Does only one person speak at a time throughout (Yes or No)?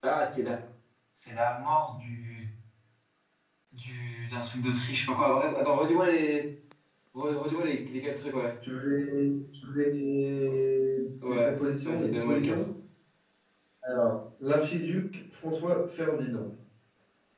No